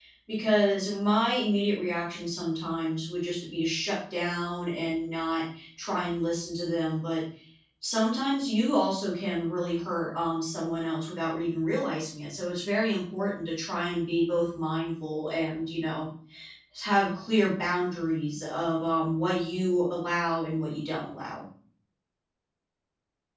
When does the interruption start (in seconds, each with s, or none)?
none